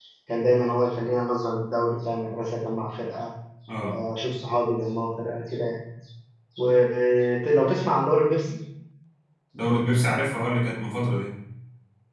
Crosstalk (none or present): none